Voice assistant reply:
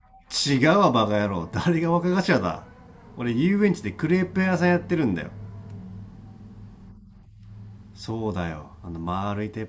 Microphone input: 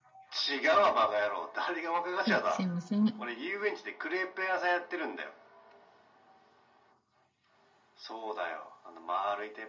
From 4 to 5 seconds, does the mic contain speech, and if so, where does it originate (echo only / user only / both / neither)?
echo only